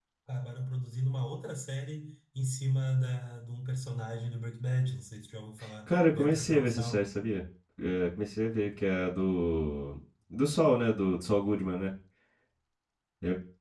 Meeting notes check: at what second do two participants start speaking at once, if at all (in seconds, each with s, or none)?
5.9 s